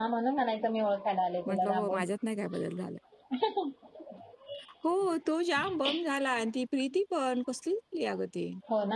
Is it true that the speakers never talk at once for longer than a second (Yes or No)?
Yes